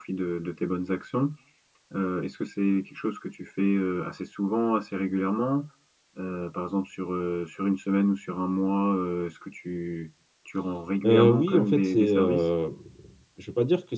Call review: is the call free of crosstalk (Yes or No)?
No